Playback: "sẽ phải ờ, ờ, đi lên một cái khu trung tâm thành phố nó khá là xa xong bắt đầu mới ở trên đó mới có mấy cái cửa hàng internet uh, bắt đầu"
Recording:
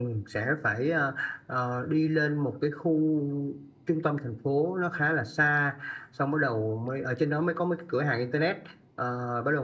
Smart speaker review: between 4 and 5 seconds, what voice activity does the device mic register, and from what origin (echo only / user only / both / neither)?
echo only